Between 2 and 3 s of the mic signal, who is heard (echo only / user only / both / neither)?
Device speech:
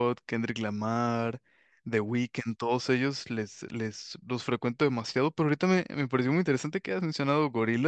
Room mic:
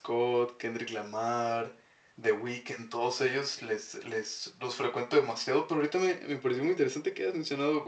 echo only